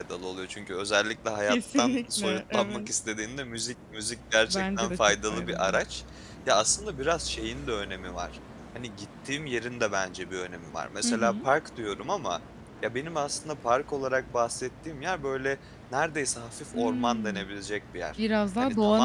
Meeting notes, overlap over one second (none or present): present